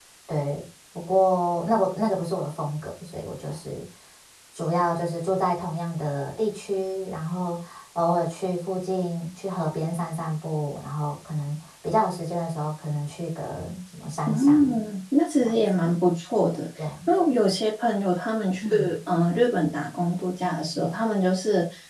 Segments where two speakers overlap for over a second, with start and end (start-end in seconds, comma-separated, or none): none